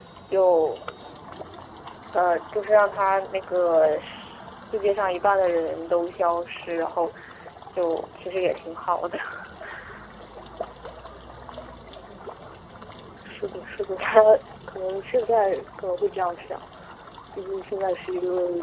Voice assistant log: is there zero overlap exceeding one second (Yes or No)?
Yes